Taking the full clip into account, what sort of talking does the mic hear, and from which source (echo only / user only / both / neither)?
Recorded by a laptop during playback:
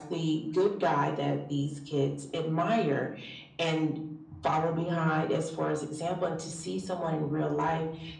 echo only